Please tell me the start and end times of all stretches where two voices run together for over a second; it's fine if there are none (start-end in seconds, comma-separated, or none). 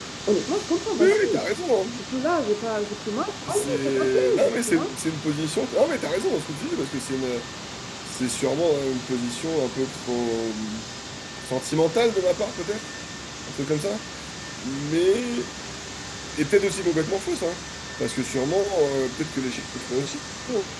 3.5-4.9